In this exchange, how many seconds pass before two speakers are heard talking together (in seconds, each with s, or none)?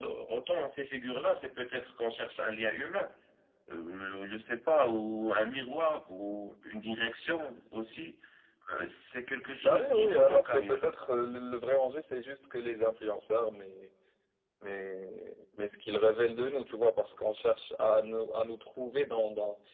9.6 s